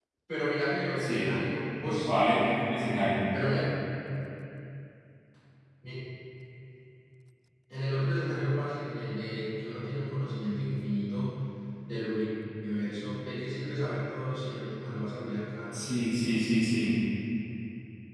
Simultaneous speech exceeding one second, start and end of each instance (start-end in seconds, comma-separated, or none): none